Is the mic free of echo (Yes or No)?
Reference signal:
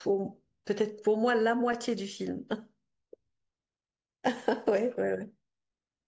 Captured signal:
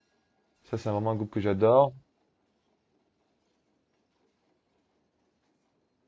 Yes